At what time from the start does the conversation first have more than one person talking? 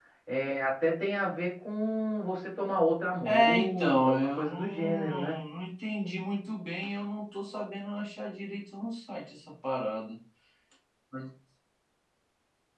3.2 s

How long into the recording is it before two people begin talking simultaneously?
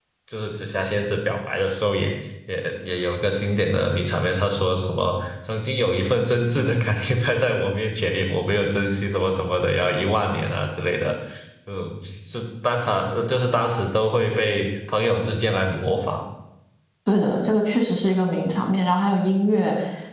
none

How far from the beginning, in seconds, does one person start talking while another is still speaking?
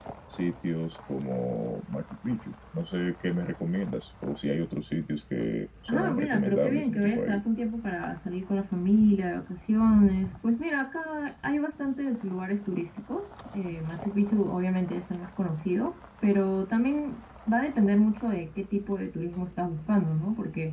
5.9 s

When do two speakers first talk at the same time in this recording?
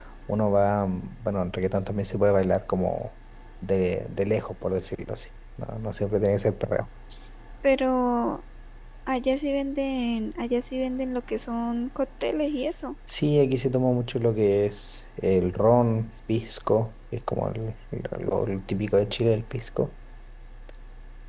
none

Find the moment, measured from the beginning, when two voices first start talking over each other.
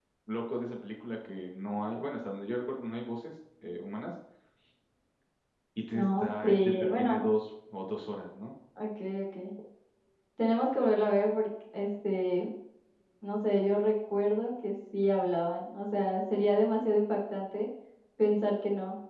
5.9 s

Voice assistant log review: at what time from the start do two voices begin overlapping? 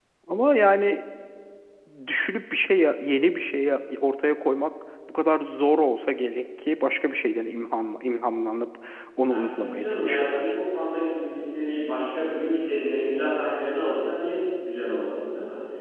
9.3 s

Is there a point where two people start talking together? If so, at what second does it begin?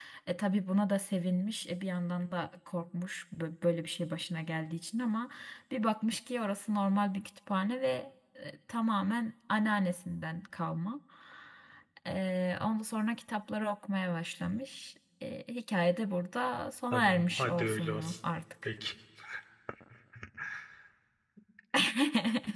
16.9 s

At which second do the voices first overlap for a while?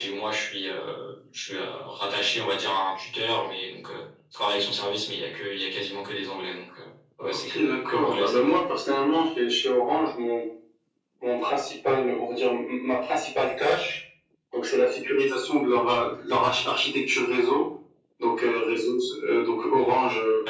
7.3 s

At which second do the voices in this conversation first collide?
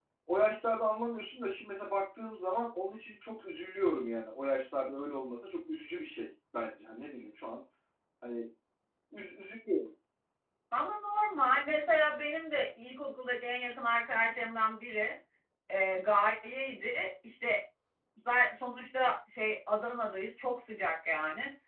none

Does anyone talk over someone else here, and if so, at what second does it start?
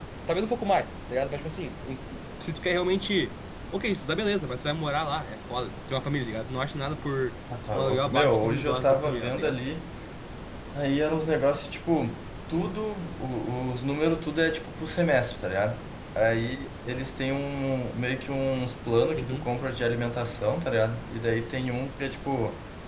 7.7 s

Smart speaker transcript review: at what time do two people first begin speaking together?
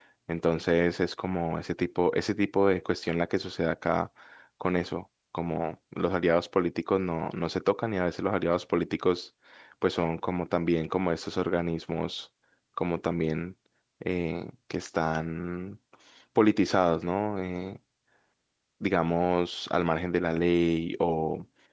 none

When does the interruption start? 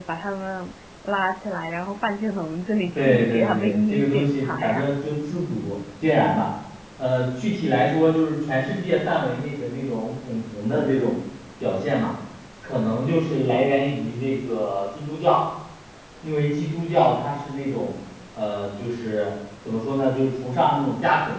2.9 s

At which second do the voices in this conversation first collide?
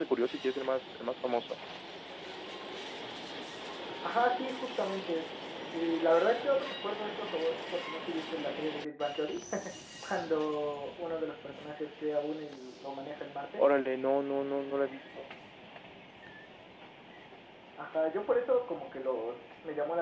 none

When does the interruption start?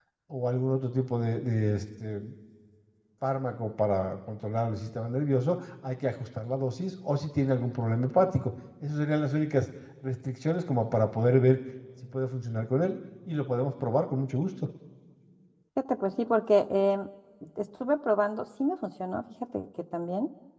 none

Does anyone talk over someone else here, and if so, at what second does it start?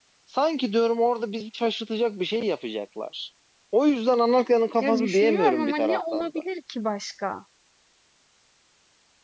4.8 s

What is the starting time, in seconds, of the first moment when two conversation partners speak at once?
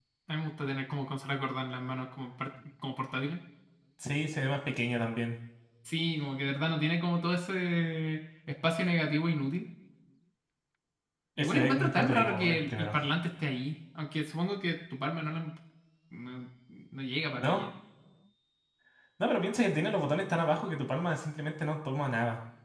11.4 s

